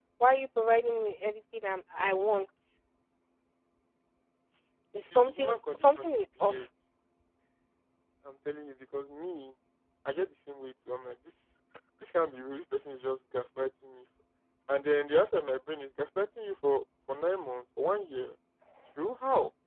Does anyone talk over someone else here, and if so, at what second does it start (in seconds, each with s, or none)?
5.0 s